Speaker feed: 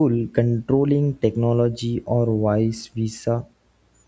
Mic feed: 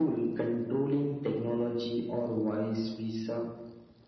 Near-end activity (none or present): none